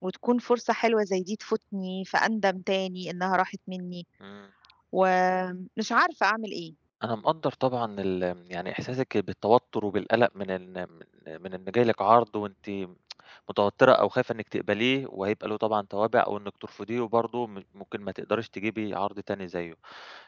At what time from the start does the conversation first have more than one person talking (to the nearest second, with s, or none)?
none